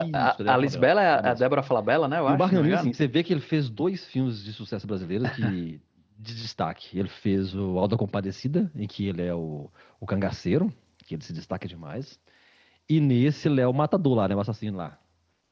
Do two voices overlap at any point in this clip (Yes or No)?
Yes